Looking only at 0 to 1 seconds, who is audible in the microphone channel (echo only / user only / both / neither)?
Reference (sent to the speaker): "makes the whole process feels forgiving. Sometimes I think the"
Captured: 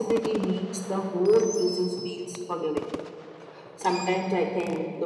echo only